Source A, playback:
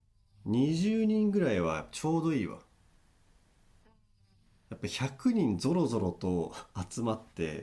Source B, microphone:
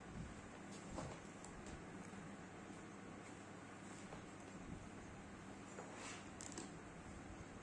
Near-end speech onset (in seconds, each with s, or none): none